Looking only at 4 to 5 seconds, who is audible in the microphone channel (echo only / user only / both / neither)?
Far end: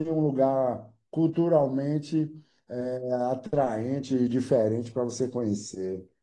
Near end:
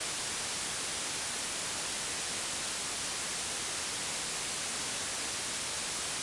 neither